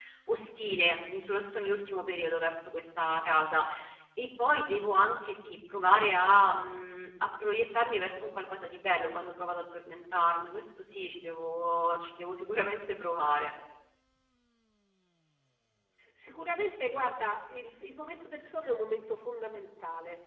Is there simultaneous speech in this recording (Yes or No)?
No